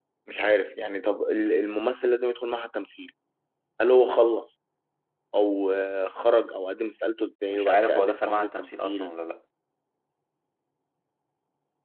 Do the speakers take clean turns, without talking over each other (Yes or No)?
No